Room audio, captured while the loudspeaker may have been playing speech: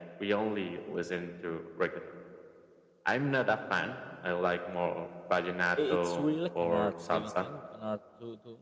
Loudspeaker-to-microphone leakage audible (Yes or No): Yes